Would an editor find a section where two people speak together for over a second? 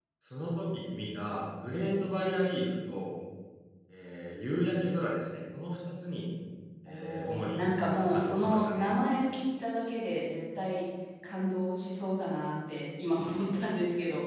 Yes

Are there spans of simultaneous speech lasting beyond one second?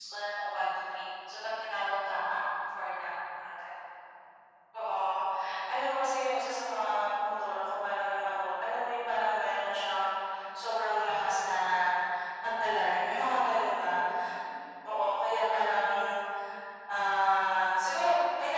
No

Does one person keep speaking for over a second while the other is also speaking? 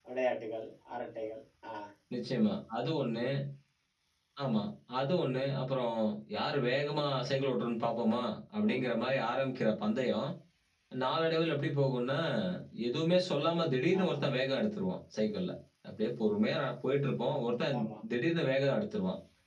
No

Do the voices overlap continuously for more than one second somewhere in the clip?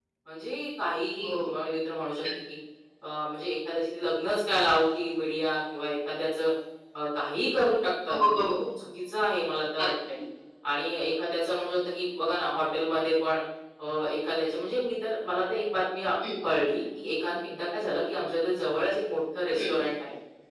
No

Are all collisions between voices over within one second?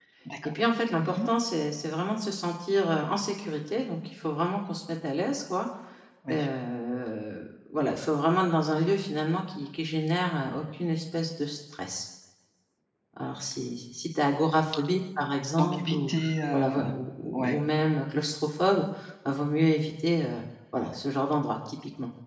Yes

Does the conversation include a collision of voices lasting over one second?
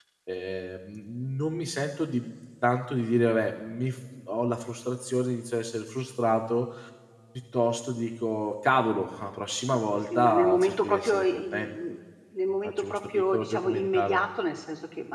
Yes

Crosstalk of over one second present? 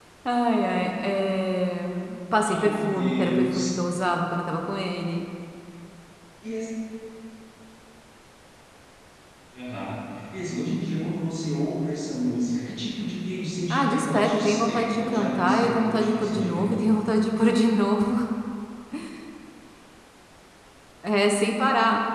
Yes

